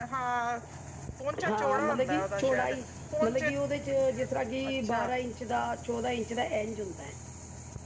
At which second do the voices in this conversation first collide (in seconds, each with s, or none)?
1.5 s